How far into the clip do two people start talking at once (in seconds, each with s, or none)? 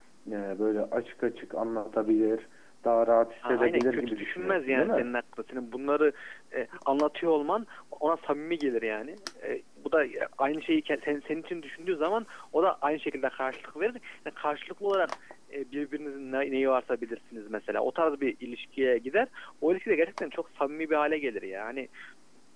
3.4 s